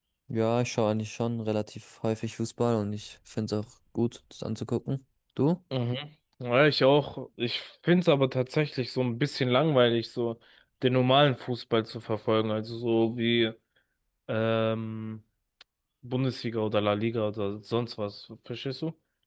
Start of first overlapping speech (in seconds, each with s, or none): none